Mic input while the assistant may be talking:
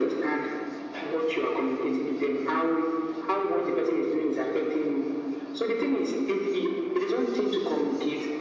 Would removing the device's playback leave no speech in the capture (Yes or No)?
Yes